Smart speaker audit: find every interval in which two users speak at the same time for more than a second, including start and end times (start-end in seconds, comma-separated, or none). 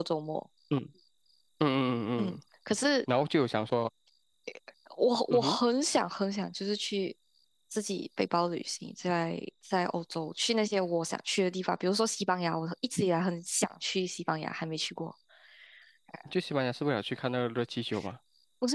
none